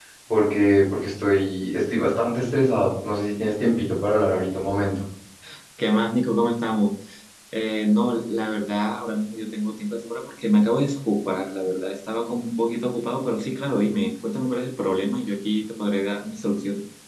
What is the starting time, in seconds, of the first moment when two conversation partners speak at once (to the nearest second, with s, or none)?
none